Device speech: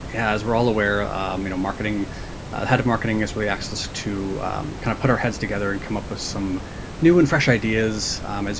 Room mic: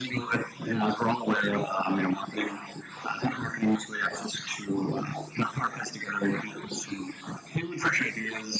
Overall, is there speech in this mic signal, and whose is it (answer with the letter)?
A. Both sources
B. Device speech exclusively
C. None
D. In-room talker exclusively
B